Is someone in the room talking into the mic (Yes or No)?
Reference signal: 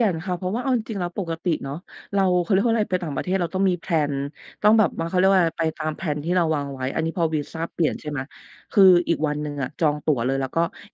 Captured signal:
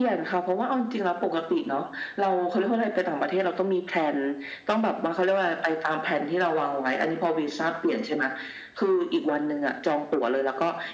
No